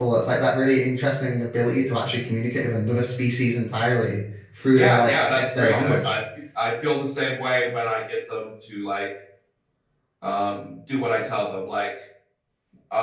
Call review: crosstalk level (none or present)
present